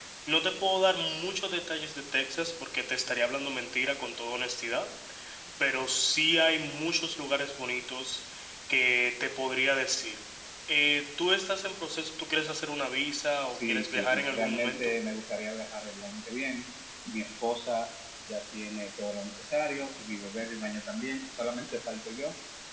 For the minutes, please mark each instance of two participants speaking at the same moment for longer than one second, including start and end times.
13.5-14.9

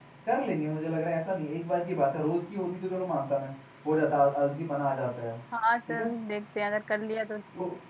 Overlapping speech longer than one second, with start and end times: none

